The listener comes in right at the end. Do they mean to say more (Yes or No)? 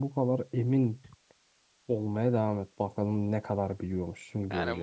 Yes